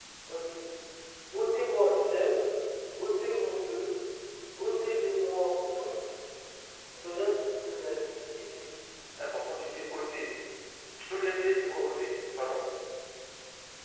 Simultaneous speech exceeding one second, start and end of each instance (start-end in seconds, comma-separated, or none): none